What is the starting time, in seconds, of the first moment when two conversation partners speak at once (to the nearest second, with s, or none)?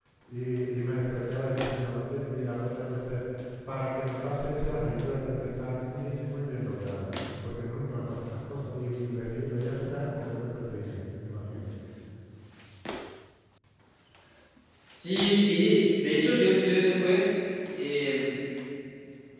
none